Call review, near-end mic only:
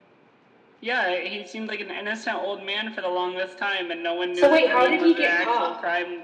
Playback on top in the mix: No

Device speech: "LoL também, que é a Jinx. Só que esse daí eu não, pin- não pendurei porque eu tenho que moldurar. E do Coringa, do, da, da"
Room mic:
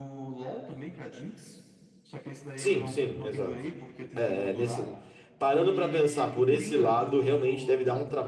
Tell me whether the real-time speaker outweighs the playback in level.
Yes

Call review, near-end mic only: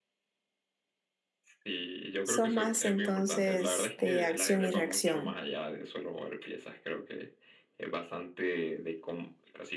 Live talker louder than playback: Yes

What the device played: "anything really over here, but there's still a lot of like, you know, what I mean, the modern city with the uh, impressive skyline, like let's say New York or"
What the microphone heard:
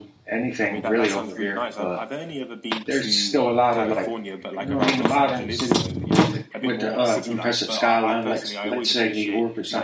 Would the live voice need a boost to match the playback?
Yes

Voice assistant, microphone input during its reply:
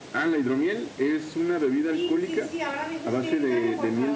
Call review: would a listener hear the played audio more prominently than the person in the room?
Yes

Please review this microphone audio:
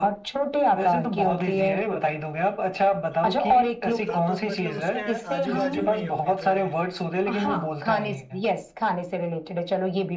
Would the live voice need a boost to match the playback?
Yes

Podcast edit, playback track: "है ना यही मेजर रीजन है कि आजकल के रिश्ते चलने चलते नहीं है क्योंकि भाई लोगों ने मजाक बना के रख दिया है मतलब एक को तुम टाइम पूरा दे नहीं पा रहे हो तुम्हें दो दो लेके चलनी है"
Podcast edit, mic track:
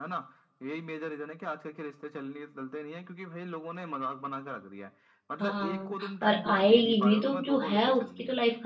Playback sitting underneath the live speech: Yes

